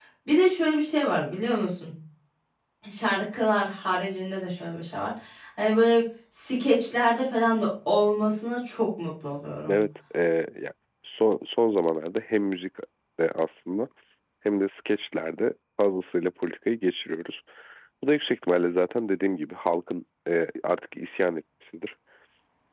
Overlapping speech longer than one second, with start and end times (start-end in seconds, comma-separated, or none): none